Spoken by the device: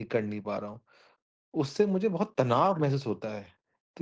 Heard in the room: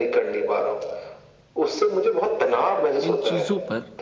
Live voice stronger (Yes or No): No